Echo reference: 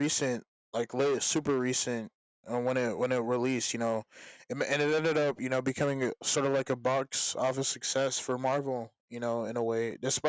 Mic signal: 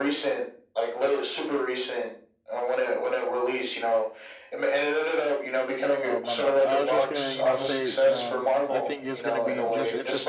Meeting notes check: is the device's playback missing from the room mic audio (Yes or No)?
No